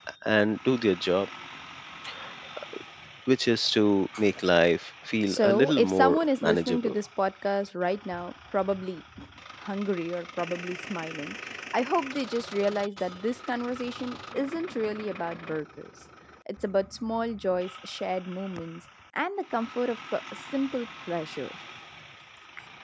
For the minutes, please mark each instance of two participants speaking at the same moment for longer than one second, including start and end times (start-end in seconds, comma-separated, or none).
5.3-6.9